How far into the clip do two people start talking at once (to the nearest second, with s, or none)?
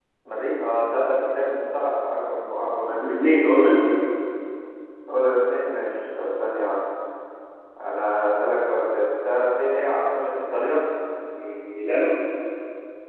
none